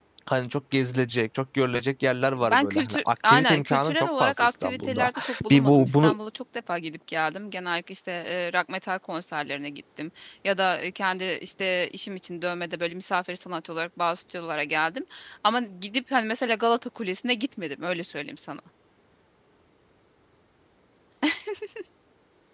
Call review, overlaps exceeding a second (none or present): present